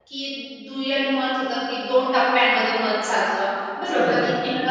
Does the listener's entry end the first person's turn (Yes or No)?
Yes